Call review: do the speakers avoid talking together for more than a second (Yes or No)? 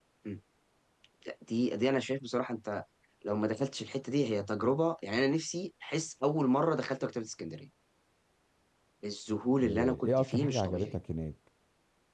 No